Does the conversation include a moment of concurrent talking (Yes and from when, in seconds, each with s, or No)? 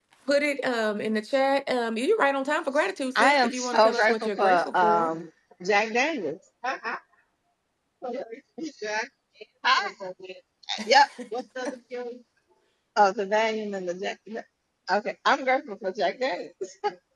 Yes, from 3.1 s